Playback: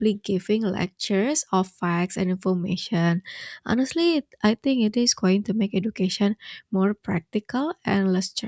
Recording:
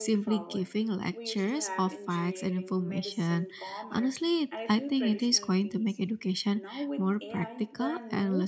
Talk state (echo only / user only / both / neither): both